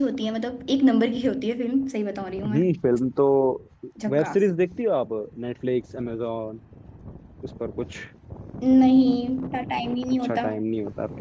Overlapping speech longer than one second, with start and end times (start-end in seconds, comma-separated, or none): none